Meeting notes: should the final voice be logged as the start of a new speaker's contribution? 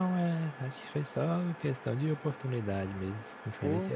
Yes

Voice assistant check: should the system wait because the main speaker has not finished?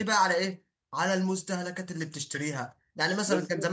Yes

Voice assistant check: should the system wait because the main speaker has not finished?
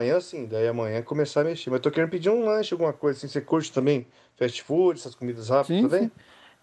No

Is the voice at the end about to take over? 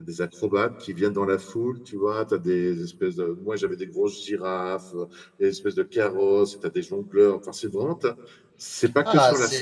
Yes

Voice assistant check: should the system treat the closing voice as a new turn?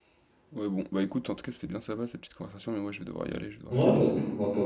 Yes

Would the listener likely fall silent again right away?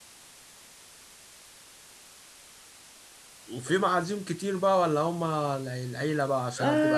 No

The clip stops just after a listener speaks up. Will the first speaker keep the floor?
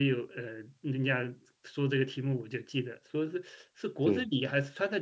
Yes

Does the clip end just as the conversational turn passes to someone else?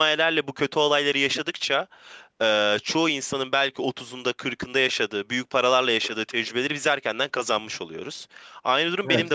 No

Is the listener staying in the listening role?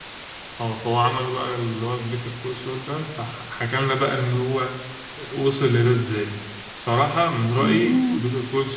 Yes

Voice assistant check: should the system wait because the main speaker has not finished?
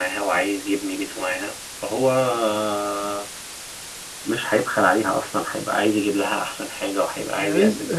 No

